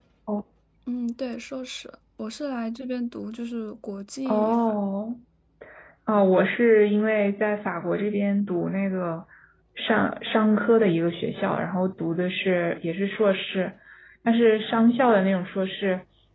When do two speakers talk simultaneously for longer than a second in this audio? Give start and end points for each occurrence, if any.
none

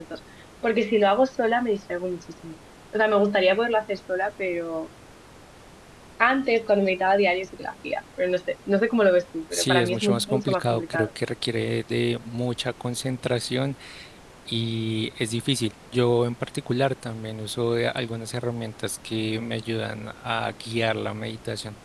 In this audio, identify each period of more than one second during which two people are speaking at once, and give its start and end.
9.5-11.1

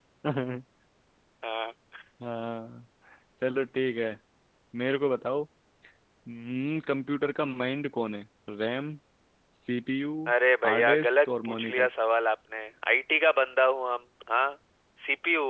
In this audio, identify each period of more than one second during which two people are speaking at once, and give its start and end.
10.6-11.9

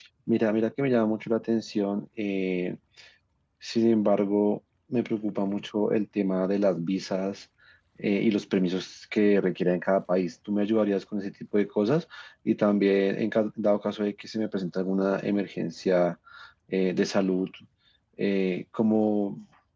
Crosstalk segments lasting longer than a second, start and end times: none

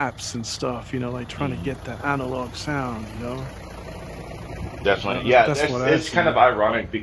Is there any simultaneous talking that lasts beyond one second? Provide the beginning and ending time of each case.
5.0-6.4

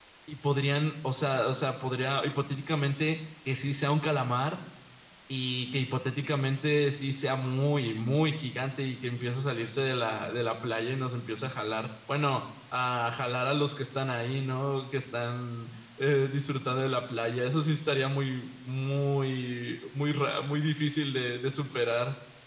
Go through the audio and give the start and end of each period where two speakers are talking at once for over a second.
none

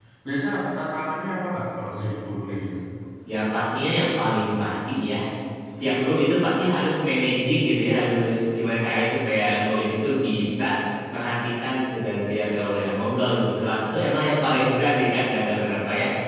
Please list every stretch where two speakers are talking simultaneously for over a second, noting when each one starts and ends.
none

